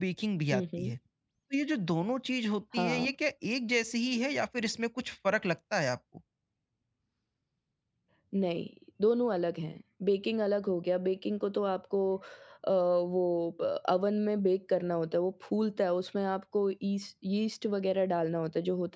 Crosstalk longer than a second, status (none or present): none